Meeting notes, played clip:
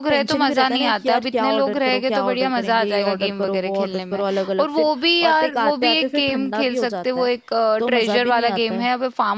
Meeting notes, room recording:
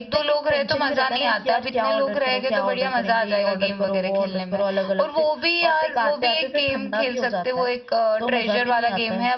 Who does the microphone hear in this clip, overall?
echo only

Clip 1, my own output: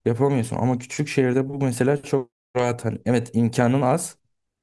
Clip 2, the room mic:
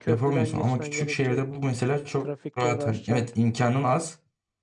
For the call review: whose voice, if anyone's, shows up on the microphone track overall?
both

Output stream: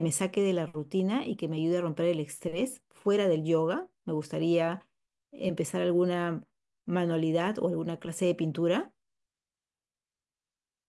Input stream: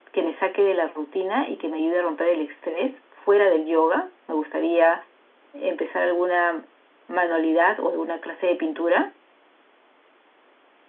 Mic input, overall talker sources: echo only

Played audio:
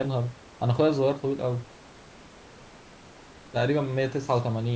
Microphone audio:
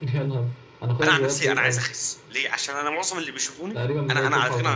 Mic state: both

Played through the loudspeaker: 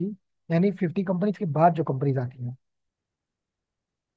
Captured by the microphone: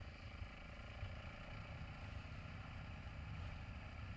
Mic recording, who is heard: neither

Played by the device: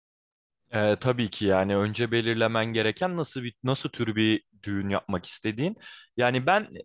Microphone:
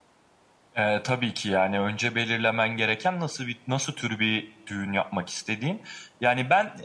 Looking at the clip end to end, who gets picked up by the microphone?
echo only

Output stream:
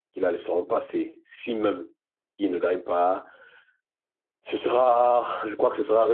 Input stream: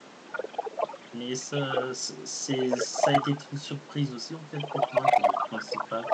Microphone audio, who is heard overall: both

